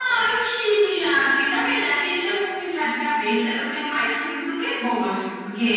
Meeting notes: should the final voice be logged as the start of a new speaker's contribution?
No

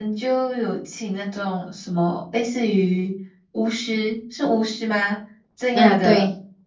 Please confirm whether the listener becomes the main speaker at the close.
No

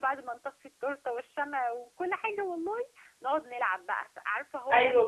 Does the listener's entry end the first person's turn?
Yes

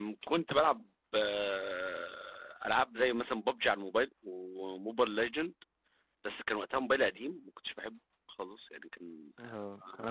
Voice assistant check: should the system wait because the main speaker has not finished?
No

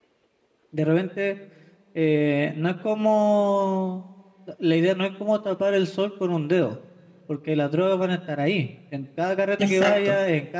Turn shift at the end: No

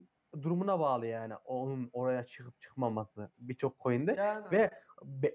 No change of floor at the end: Yes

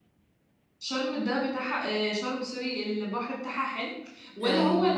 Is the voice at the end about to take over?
No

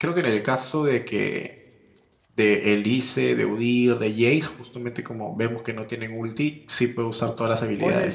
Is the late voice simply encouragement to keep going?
No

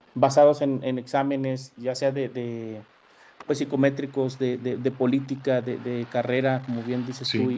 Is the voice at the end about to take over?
No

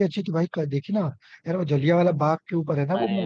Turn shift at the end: Yes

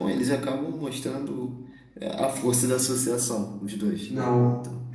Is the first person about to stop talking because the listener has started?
Yes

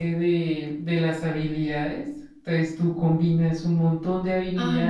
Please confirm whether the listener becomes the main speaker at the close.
Yes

